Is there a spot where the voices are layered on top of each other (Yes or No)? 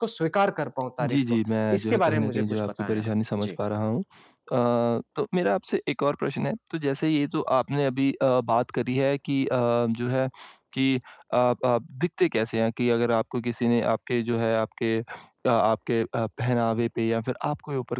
Yes